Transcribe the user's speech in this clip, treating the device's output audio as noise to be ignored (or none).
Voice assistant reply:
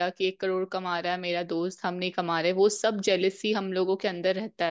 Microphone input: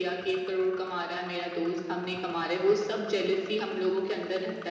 none